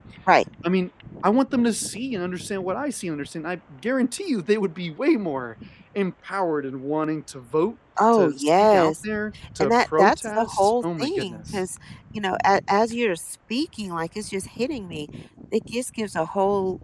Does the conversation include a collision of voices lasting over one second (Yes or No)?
Yes